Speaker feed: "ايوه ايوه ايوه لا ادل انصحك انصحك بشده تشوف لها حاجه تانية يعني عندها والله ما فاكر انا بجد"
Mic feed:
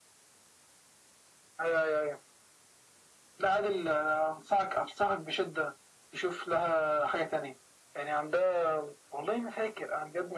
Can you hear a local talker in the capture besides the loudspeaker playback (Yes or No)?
No